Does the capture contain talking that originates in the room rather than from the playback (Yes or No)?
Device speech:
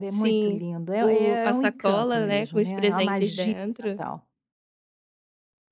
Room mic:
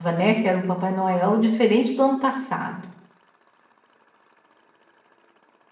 Yes